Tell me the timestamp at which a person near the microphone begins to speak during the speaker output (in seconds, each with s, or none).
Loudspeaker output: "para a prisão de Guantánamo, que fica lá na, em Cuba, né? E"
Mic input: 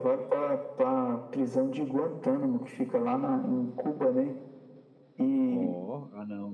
5.5 s